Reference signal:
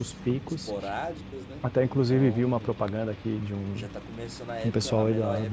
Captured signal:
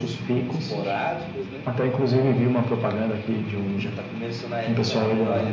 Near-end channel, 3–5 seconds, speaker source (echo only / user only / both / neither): echo only